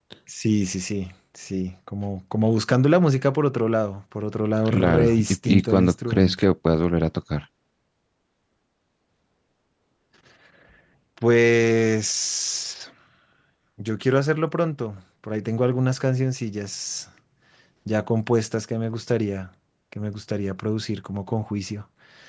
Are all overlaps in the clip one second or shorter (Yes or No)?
No